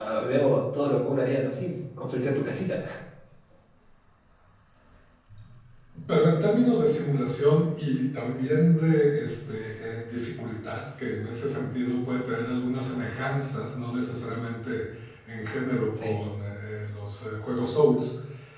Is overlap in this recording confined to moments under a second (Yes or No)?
Yes